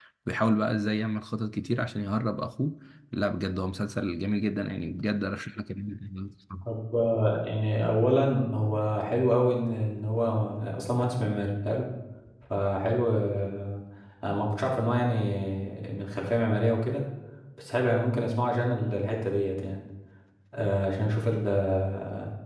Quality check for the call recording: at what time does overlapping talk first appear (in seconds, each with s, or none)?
none